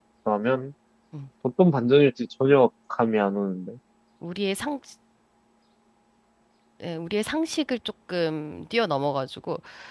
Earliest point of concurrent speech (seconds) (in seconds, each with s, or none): none